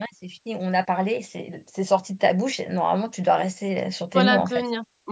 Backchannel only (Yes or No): No